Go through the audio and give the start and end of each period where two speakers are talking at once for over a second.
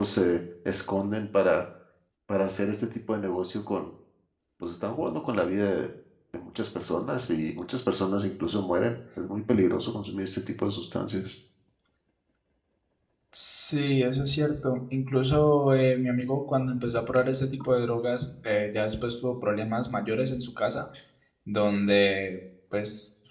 none

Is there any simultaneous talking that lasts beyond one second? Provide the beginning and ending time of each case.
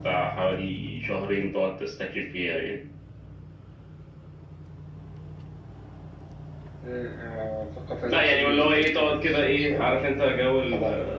8.1-10.0

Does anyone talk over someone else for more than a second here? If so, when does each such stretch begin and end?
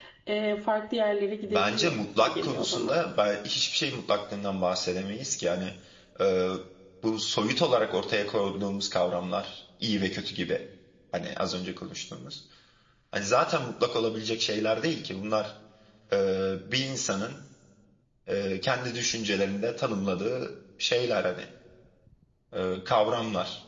1.4-2.9

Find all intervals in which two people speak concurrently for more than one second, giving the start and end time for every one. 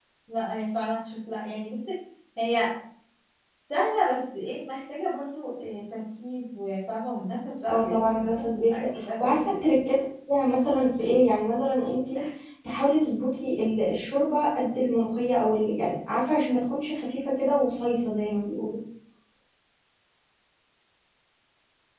7.7-9.6

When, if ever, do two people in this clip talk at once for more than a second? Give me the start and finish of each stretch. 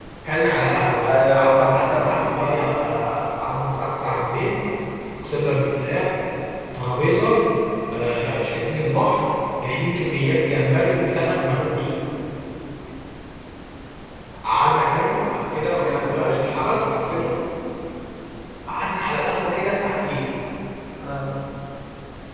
1.1-2.5, 15.7-17.1

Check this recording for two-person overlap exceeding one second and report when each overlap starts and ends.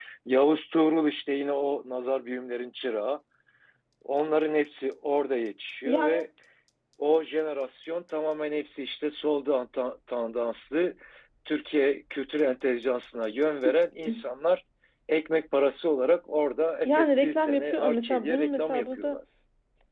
16.8-19.2

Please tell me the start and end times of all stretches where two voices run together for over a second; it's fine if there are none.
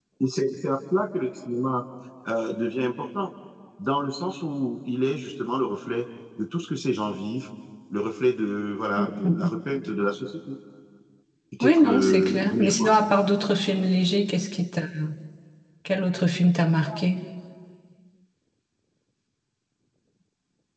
11.6-12.9

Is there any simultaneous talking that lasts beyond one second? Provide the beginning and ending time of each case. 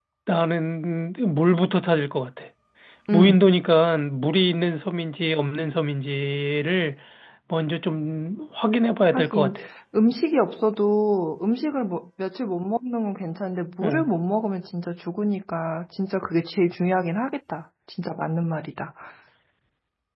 none

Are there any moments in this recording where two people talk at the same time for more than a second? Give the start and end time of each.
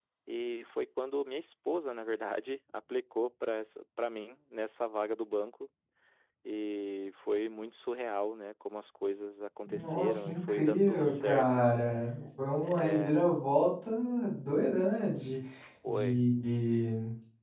9.7-11.6

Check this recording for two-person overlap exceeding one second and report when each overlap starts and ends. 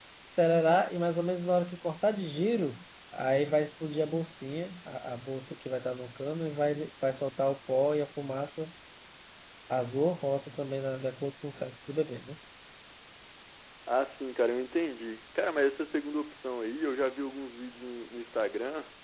none

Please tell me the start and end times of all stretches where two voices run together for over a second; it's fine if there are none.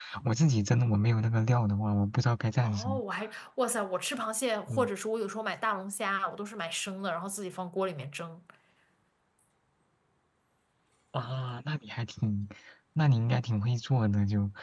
none

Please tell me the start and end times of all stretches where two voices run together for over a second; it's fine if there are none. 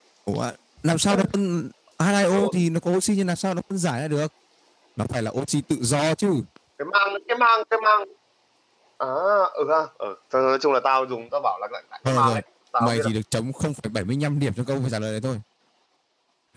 none

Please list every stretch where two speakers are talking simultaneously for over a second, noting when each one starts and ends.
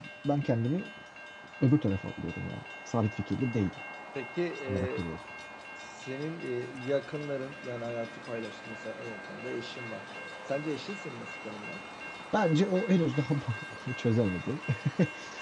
none

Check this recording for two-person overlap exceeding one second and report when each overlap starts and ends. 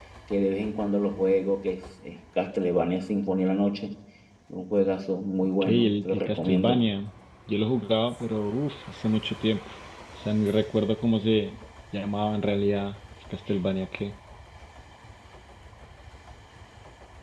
5.6-6.8

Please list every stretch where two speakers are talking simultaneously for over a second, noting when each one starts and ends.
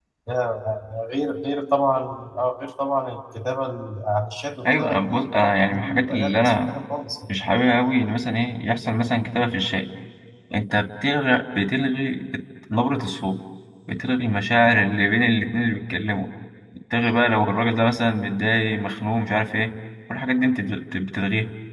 4.7-6.7

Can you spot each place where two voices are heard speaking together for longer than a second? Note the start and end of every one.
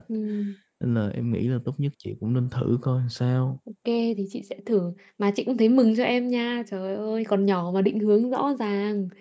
none

